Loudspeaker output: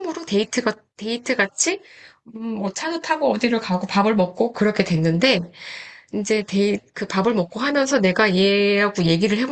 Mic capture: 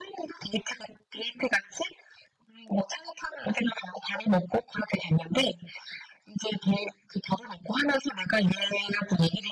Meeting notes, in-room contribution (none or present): none